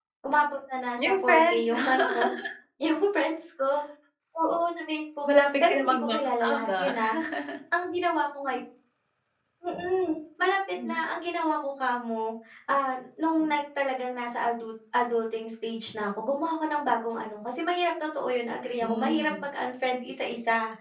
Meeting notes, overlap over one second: present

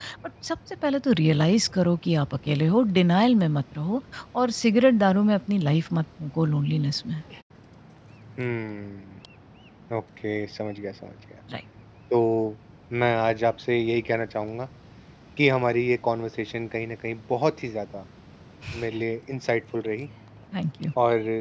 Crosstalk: none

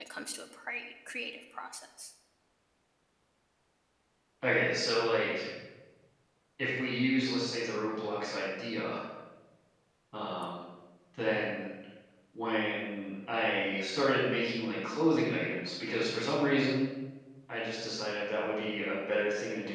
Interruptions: none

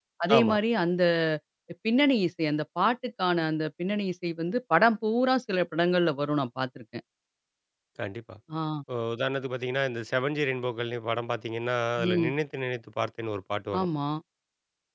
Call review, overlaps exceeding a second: none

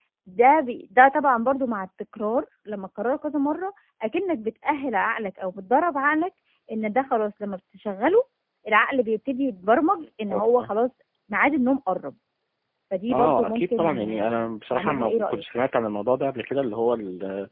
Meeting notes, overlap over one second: present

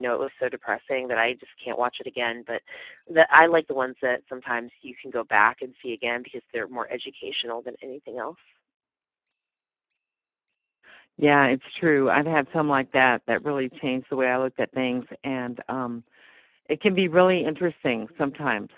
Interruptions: none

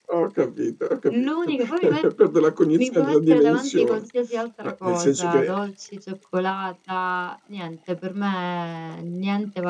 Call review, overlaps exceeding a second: present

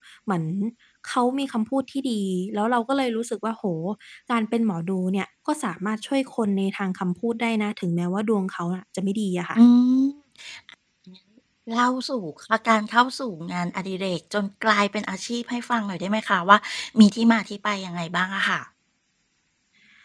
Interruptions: none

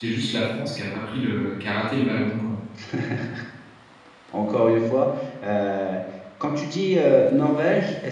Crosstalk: none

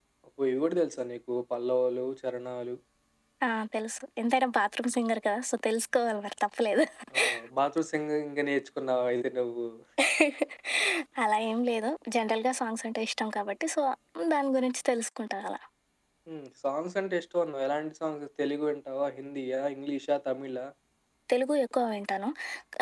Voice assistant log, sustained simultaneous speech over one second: none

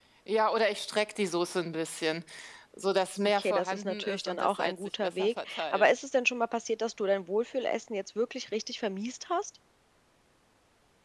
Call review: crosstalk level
present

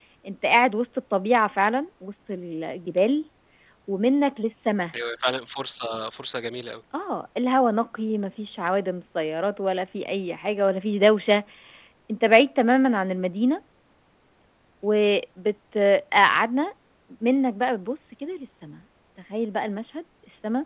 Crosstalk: none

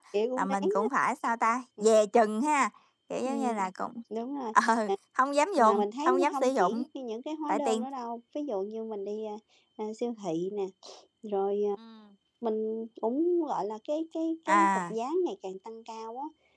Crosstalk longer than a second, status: present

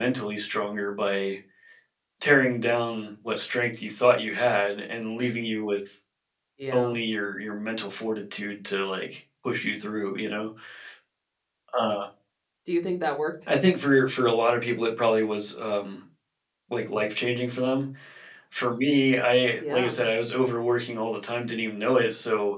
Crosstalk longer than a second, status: none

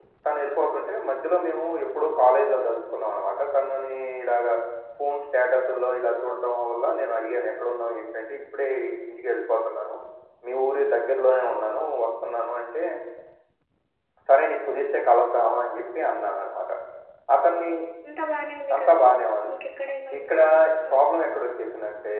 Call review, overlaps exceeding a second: none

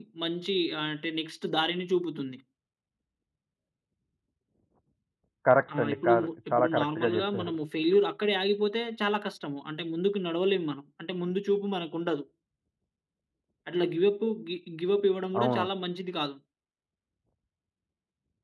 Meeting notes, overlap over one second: present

